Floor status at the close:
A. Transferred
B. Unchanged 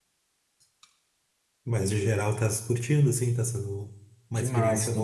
A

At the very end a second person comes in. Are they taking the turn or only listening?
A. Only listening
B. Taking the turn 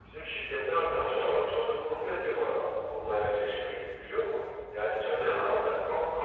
A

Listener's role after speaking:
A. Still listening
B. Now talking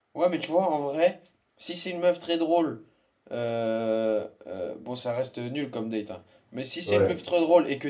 A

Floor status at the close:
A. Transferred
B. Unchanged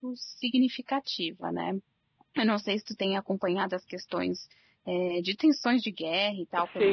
A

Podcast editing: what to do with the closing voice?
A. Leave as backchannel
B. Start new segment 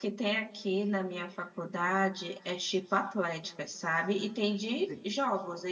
A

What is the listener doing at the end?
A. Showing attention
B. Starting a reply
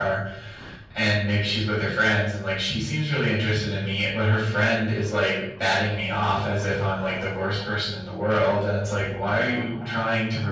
A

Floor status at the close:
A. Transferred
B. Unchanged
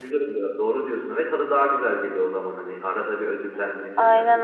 A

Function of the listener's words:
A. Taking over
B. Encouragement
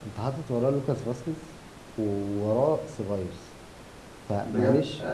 A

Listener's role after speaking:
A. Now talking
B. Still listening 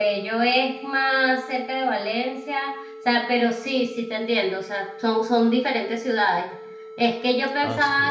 B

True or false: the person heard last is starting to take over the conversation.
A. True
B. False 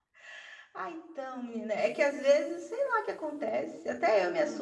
B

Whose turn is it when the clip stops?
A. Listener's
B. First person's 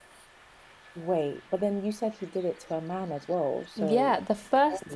A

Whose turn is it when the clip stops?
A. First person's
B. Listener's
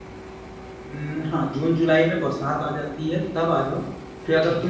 A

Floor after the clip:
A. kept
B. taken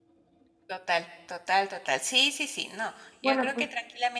A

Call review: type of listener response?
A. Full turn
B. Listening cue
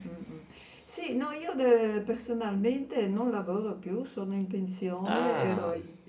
B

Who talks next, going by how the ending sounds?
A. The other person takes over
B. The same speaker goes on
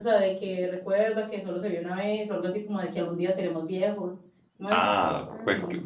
A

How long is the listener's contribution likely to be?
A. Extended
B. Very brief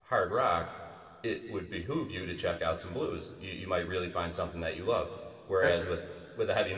B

